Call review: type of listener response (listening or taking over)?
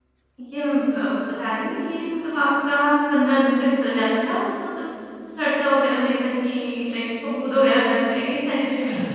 taking over